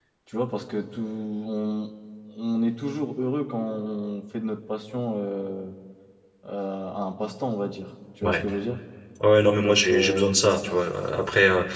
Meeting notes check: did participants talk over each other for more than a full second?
Yes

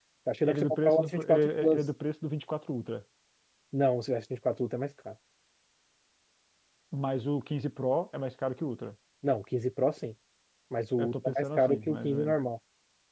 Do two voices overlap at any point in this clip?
Yes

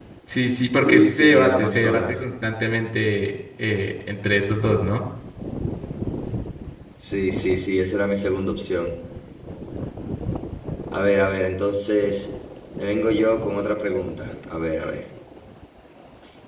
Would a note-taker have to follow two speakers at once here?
Yes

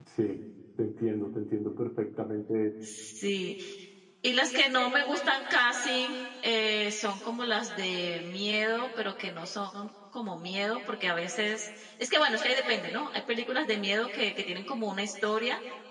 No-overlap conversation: Yes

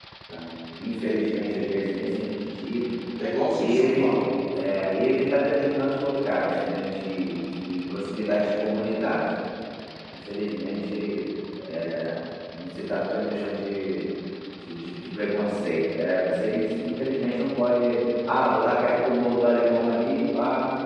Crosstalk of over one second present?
No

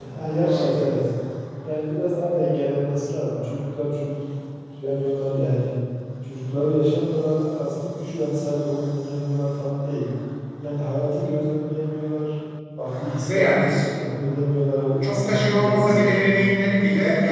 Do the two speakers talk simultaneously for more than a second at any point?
Yes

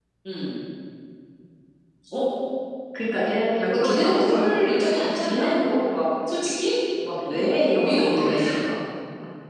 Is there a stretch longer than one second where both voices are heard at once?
Yes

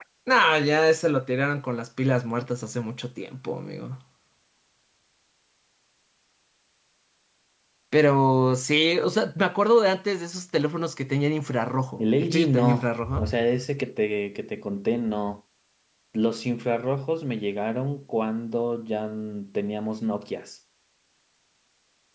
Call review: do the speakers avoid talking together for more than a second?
No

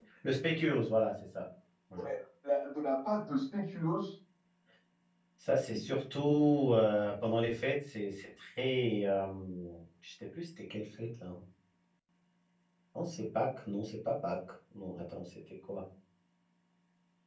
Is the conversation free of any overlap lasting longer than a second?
Yes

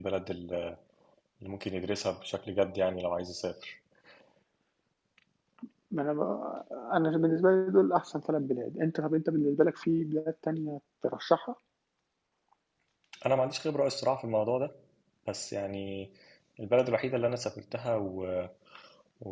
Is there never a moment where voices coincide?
Yes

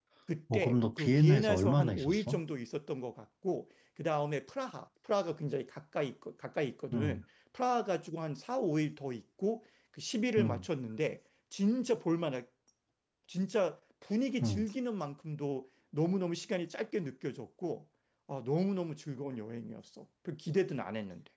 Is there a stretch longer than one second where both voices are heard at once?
Yes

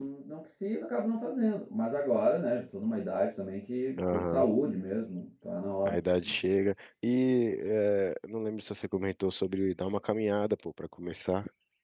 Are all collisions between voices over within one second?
Yes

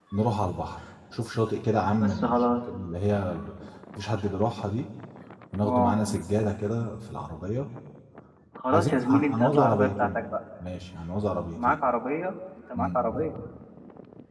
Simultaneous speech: Yes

